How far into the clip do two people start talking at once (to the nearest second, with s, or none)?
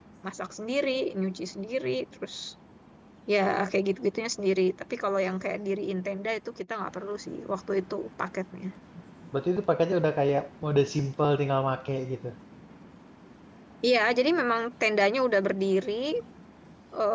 none